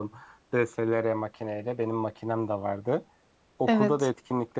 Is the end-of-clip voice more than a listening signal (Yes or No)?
No